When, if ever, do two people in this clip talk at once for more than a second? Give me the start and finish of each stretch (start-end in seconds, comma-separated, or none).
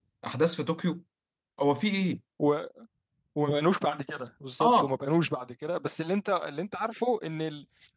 none